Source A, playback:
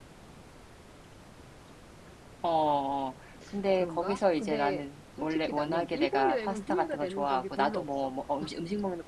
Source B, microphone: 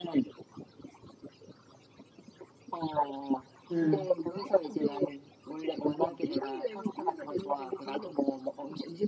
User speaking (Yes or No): Yes